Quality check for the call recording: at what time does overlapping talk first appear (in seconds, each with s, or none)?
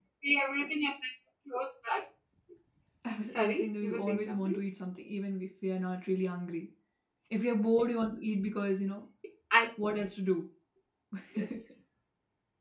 3.4 s